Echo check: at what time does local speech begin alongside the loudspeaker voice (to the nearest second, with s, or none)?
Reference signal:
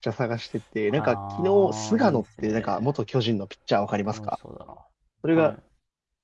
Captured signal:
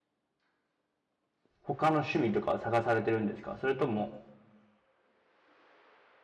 2 s